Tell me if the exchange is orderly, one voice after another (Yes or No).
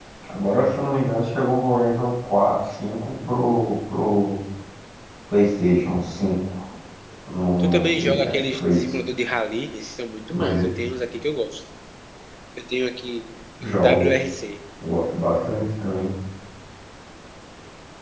No